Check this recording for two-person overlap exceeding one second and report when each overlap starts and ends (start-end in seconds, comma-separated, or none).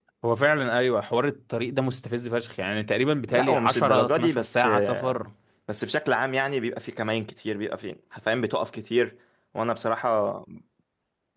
3.3-5.2